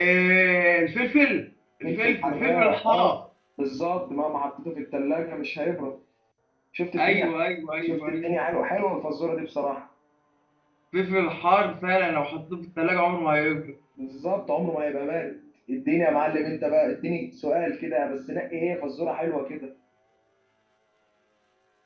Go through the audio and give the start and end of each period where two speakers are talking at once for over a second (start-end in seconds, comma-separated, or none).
1.8-3.1